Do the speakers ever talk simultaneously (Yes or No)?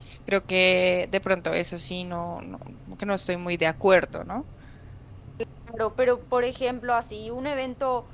No